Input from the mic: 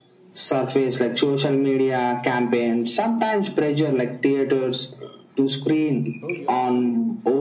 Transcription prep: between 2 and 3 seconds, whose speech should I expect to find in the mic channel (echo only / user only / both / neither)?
echo only